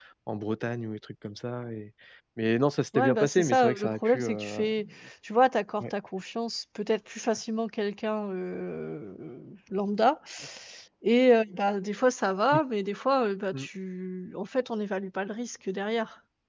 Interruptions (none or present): present